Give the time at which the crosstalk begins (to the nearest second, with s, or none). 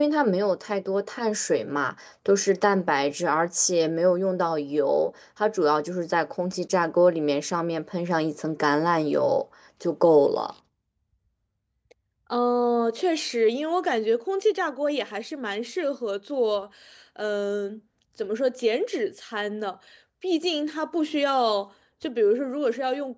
none